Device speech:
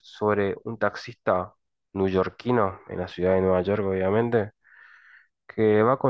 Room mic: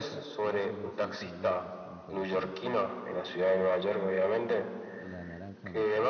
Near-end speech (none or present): present